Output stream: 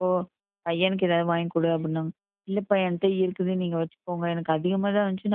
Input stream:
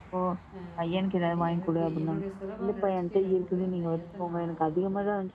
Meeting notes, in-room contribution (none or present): present